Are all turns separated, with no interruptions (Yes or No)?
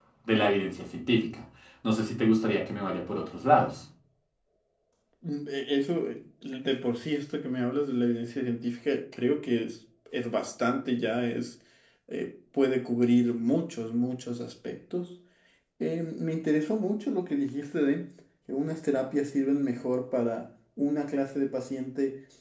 Yes